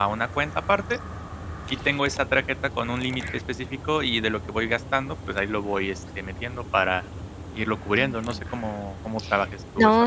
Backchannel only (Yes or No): No